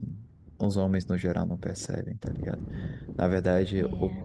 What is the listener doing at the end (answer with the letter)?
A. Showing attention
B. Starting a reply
A